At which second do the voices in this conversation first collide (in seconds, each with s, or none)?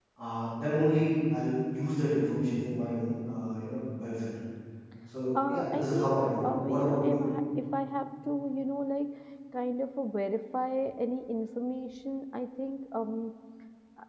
5.4 s